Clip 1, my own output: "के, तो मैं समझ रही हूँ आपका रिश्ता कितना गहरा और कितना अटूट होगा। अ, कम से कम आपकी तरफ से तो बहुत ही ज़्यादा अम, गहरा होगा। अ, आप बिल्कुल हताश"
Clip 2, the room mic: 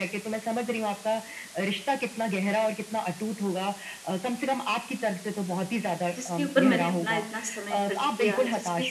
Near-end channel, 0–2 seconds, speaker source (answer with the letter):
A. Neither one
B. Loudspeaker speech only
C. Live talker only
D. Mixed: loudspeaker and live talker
B